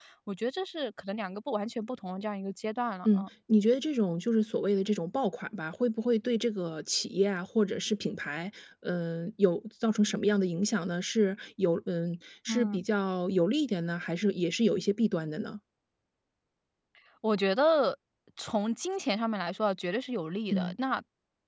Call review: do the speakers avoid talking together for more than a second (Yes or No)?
Yes